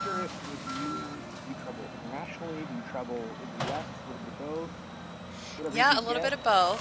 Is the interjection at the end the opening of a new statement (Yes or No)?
Yes